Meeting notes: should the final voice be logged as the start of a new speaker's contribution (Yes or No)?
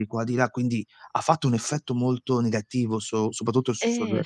Yes